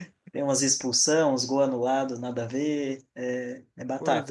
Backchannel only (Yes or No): No